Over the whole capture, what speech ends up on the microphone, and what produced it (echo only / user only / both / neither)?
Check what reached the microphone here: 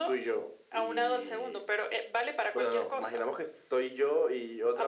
echo only